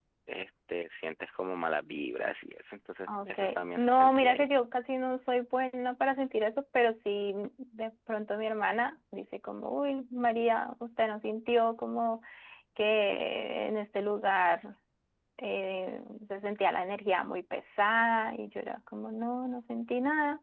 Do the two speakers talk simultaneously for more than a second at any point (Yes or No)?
Yes